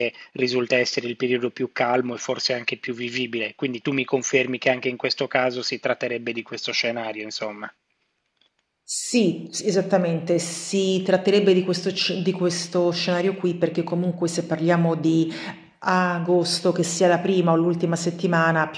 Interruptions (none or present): none